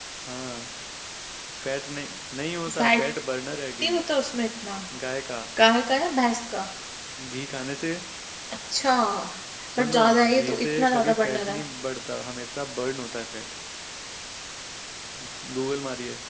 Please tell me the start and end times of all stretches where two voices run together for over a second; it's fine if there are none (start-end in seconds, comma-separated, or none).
9.8-11.6